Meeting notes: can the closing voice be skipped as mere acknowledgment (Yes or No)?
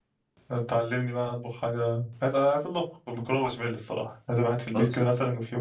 Yes